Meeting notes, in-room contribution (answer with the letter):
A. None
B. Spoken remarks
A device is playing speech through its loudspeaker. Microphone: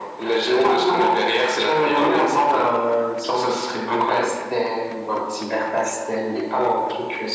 A